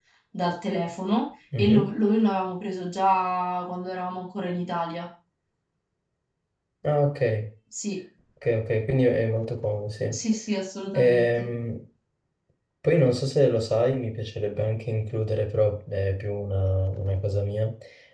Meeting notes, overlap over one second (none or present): none